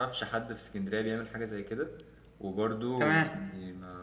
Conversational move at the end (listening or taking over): listening